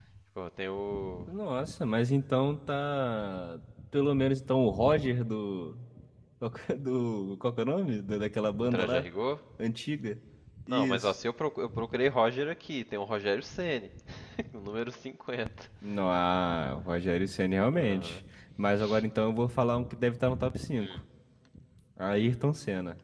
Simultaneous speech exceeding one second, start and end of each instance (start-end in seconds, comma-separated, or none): none